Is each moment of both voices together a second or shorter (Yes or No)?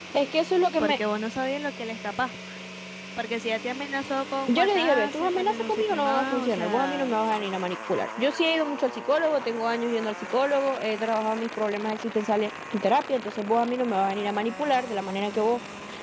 No